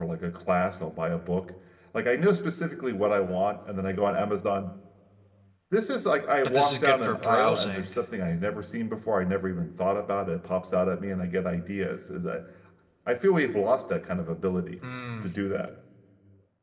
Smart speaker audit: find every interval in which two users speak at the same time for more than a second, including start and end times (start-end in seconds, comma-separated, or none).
6.4-7.9